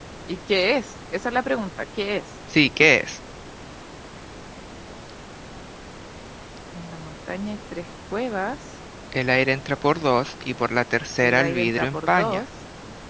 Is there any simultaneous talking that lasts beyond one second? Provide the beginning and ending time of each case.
11.2-12.4

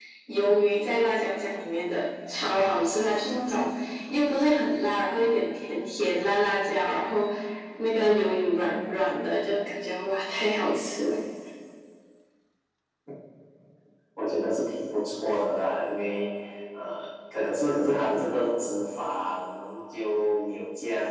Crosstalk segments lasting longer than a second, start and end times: none

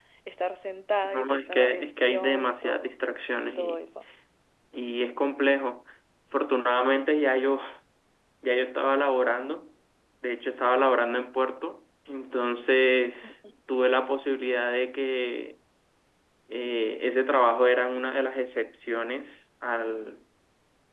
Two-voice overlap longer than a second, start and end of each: 1.0-2.9

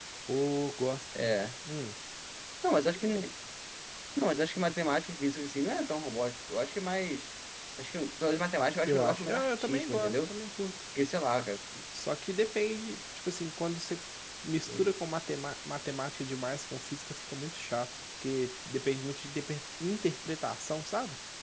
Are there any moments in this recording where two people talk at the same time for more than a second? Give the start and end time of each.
8.8-10.3

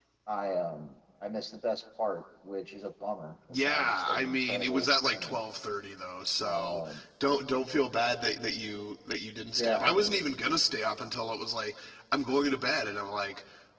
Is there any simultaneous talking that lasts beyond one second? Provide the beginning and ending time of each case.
3.5-5.4

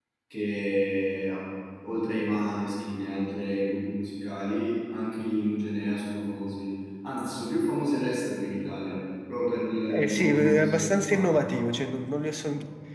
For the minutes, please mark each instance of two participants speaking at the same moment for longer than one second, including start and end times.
9.9-11.6

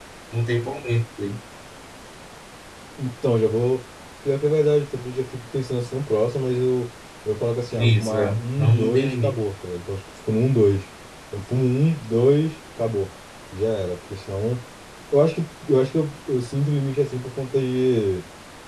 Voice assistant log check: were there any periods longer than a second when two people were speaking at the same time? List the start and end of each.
7.8-9.4

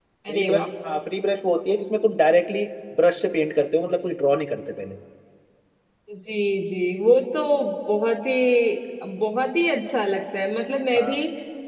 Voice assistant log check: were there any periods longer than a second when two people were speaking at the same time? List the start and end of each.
none

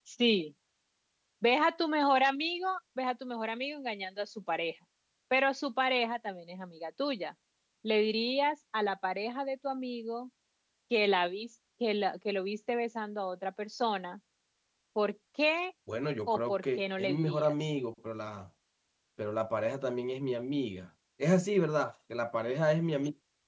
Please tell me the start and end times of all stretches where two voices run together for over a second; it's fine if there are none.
16.3-17.5

